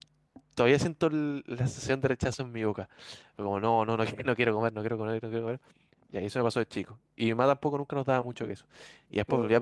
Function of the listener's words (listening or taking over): listening